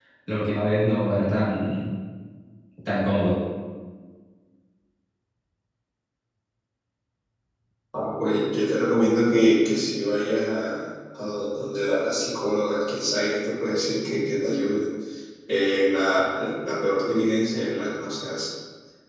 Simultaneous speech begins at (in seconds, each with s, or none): none